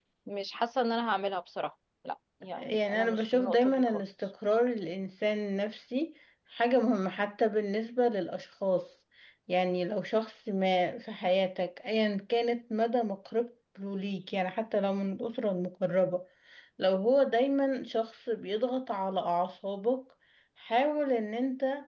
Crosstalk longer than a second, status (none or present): present